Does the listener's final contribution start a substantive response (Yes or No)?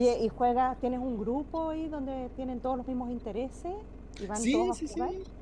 Yes